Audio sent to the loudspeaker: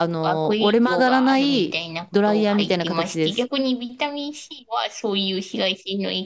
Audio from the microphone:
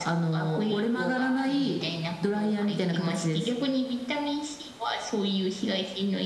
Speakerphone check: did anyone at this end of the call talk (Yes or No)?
No